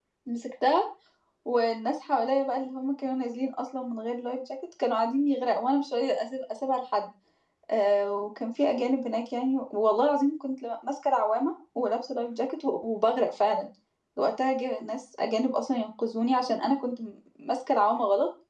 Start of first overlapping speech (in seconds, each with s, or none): none